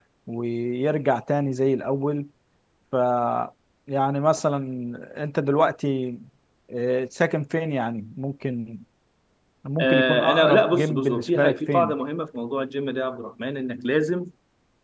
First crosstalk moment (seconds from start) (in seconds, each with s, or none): 9.8 s